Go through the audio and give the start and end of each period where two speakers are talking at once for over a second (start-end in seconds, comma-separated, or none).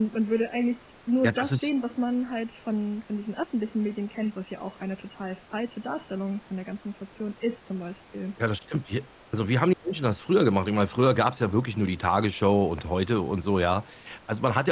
none